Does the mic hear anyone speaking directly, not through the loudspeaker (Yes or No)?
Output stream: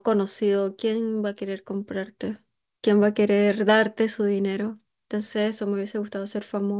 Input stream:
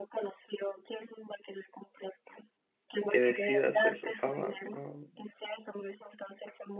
Yes